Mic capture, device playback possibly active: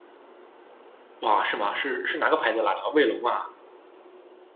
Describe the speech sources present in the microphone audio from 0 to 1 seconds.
neither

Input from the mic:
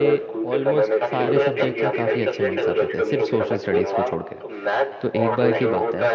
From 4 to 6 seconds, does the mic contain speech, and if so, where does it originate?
both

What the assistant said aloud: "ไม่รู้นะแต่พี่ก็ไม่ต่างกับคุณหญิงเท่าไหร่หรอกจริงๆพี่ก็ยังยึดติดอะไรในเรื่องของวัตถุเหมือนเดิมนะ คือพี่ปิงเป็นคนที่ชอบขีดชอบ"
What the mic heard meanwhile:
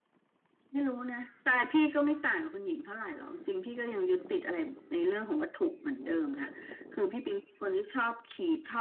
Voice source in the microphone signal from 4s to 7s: echo only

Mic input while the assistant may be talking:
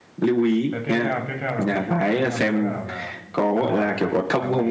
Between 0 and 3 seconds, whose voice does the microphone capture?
both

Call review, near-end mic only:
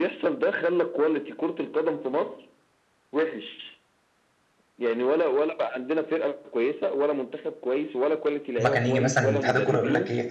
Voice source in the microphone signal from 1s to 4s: echo only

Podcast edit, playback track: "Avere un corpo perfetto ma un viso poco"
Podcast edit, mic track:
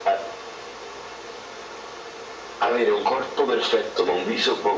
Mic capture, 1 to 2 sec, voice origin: neither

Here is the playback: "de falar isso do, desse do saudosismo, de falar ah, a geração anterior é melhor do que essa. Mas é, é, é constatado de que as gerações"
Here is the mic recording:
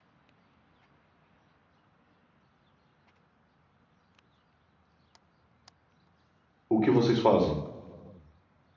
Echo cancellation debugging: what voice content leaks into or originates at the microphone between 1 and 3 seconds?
neither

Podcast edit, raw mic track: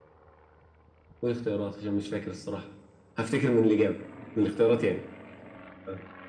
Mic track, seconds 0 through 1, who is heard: neither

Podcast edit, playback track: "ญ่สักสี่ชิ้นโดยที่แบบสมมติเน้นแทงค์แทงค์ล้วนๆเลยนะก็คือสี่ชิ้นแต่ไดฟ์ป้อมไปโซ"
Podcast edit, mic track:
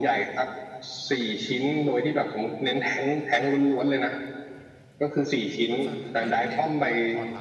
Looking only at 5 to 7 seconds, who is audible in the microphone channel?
both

